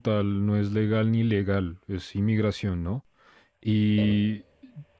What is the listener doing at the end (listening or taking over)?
listening